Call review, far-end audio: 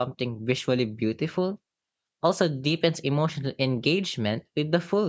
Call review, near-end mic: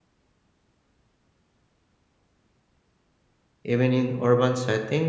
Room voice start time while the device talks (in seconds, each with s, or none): 3.6 s